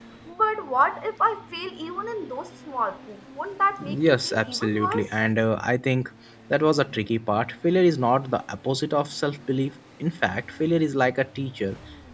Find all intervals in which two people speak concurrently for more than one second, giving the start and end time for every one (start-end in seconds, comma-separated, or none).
3.8-5.1